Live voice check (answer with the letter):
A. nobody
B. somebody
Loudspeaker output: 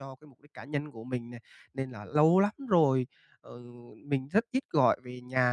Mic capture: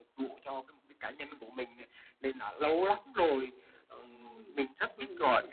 B